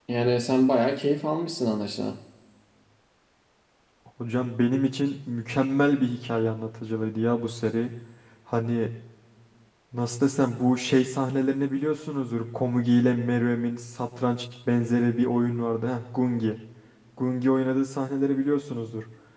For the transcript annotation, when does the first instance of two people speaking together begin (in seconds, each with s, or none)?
none